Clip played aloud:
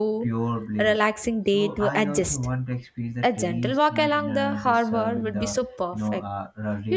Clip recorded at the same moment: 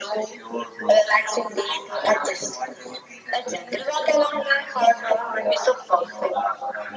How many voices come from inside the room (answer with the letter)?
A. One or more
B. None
B